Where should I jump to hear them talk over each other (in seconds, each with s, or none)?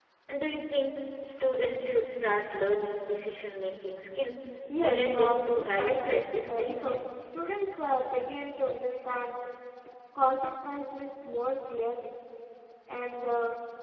4.8 s